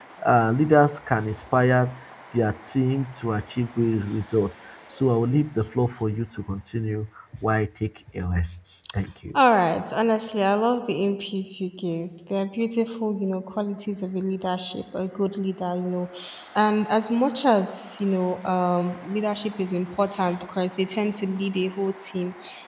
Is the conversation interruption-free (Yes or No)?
Yes